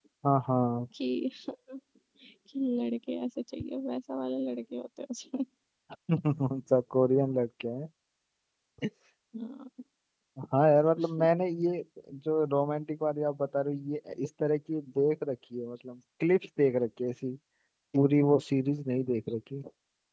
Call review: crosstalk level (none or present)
none